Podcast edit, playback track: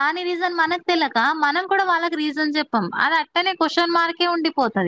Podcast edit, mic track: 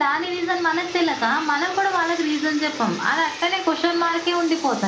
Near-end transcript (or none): none